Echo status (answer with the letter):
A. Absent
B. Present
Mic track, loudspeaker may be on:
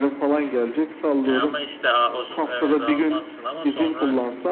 B